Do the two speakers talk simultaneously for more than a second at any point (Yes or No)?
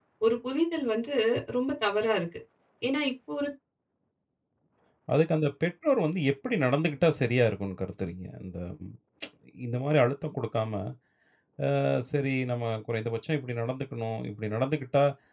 No